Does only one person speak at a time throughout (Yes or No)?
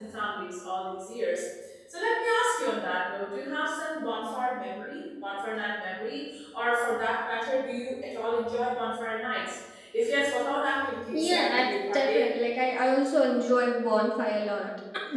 No